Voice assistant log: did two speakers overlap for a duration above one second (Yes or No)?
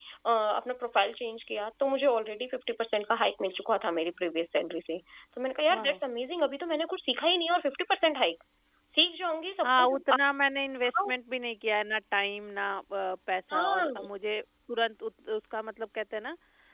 No